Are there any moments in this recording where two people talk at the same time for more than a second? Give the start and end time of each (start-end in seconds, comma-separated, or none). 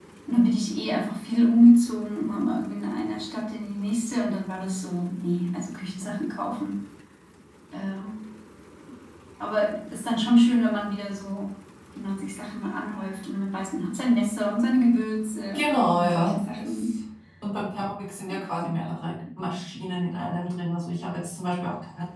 15.5-16.9